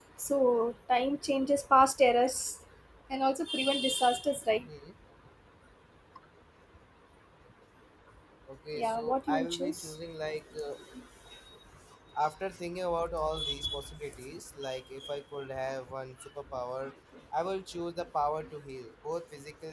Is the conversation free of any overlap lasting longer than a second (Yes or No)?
No